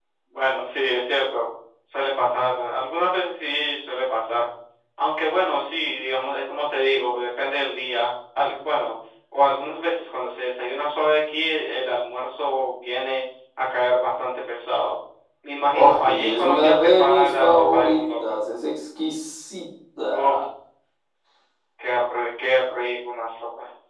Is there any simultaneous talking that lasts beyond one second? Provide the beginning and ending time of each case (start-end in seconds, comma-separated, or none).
15.7-18.4